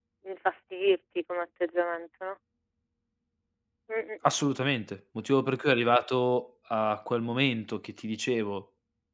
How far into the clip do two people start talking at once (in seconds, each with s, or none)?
none